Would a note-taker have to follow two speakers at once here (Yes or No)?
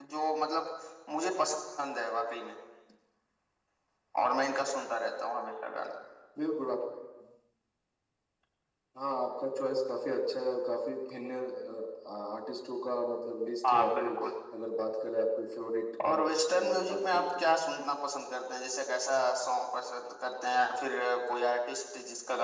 Yes